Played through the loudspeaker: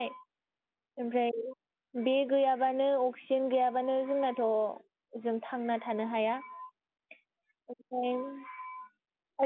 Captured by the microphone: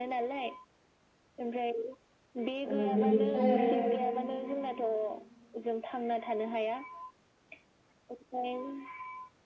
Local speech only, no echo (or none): ओ बिनिफ्राय आरो